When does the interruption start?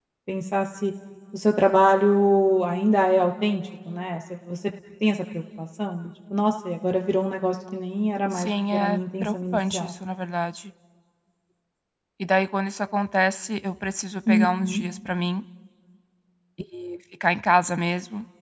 8 s

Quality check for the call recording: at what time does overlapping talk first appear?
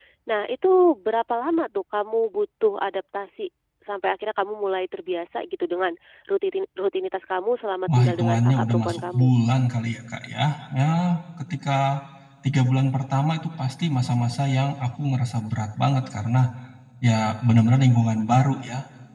8 s

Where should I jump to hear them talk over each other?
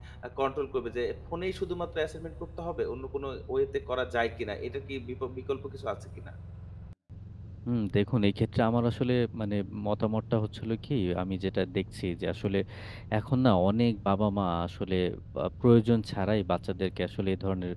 none

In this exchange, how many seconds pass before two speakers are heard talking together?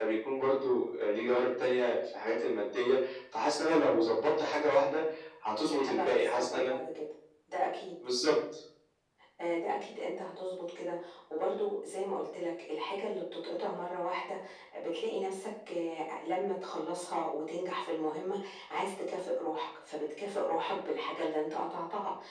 6 s

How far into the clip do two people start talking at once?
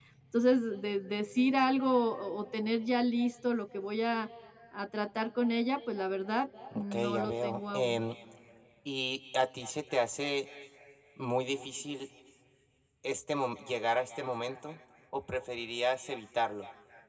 7 s

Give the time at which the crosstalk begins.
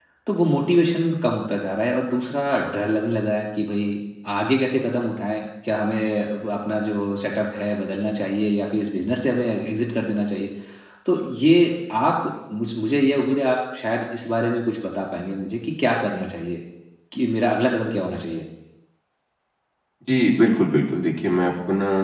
none

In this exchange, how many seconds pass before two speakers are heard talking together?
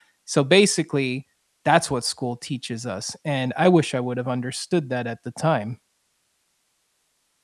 none

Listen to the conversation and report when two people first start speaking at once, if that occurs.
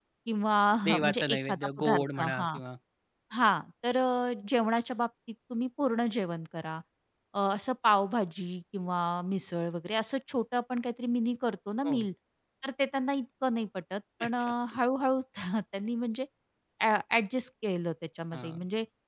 1 s

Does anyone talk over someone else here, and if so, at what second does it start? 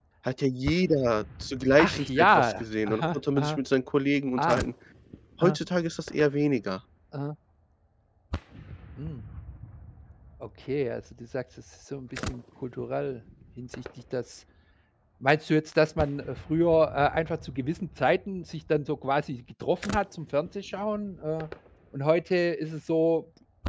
2 s

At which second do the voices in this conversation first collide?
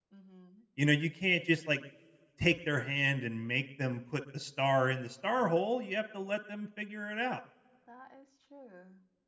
none

